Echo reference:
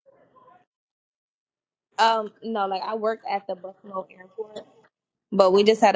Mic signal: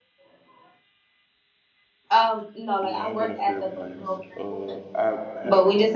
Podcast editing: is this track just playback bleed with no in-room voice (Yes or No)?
No